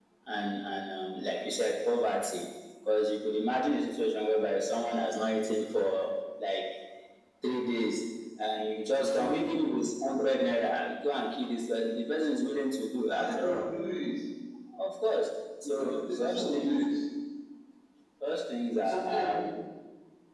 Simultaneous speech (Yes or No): Yes